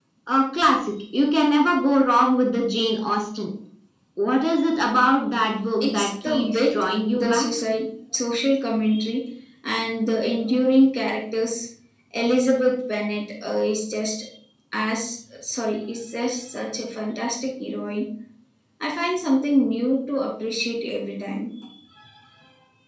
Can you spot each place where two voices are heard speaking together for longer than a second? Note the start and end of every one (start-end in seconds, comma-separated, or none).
5.8-7.5